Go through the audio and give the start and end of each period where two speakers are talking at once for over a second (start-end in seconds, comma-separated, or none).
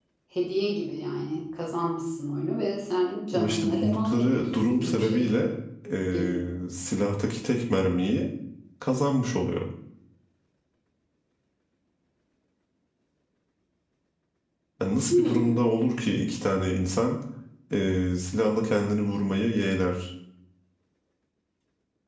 3.3-5.3